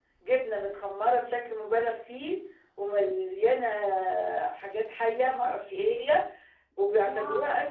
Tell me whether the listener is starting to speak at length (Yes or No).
No